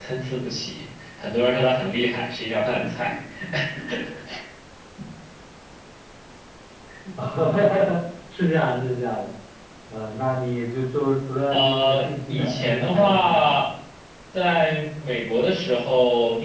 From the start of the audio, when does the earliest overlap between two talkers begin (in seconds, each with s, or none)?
11.5 s